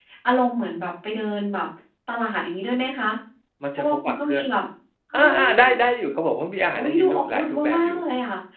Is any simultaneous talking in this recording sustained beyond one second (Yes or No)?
Yes